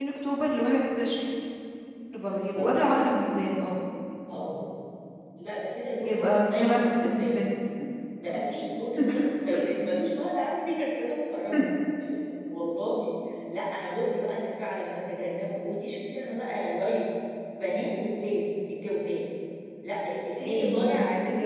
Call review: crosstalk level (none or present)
present